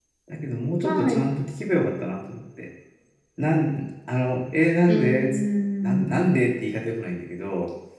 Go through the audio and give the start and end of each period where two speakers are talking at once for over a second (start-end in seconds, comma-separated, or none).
none